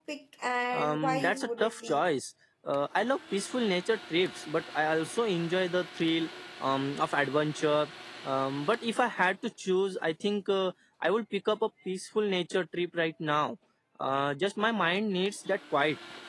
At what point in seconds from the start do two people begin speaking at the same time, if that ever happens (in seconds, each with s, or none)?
0.7 s